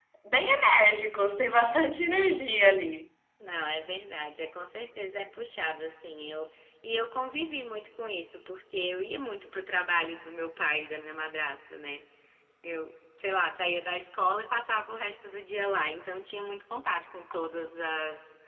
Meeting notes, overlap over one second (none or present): none